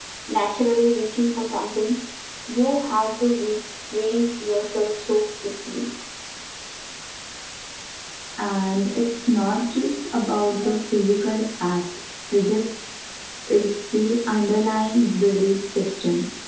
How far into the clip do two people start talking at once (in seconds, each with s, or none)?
none